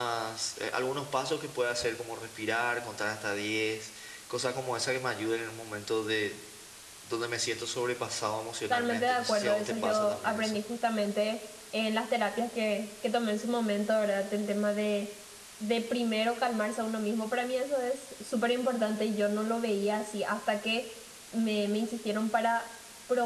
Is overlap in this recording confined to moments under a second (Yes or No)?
No